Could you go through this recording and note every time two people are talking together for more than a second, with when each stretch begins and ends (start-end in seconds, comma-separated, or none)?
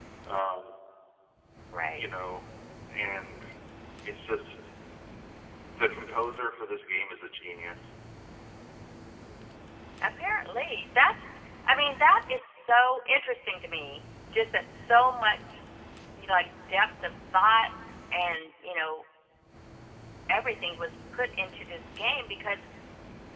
none